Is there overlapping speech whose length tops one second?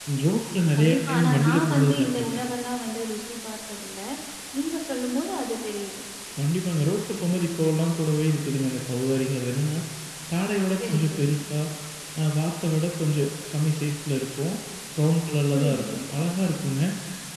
Yes, from 0.8 s

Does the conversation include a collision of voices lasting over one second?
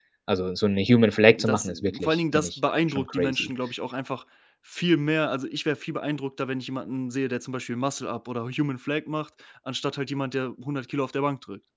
Yes, from 1.4 s

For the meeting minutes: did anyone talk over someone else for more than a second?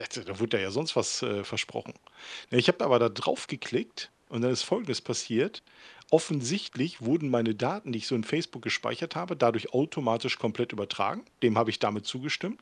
No

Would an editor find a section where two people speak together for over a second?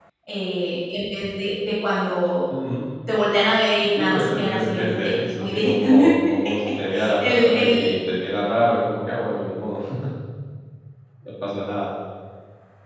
Yes, from 4.0 s

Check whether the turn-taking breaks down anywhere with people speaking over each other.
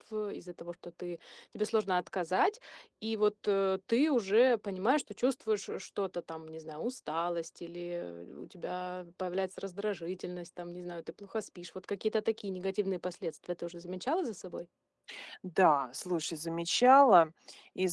No

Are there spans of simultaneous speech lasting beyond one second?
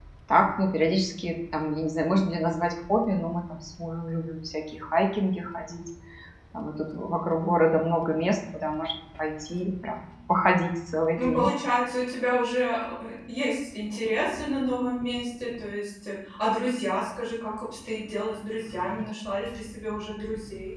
No

